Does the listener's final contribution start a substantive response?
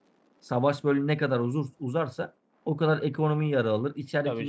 No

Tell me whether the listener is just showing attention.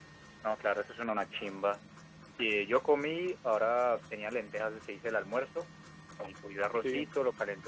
Yes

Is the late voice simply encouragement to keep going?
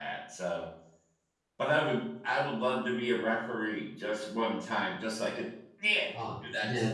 No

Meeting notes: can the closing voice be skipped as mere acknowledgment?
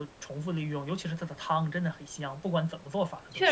No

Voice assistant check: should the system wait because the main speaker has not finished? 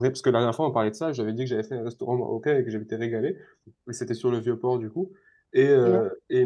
Yes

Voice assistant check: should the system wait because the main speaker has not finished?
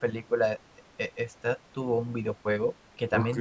Yes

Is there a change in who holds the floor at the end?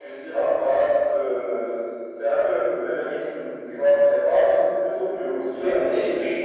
Yes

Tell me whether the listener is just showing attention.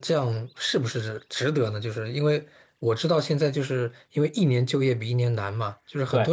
Yes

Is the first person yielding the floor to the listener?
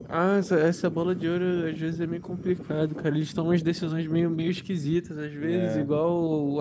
No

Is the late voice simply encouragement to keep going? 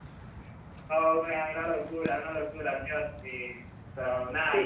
No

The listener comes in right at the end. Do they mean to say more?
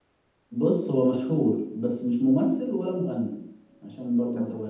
Yes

